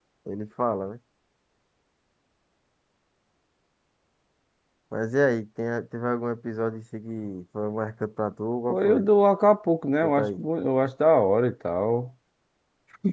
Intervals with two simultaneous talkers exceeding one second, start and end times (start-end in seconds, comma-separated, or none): none